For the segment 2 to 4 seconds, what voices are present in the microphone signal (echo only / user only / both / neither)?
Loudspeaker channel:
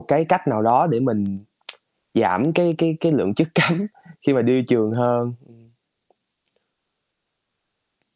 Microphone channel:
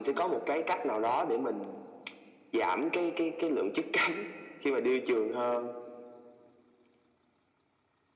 echo only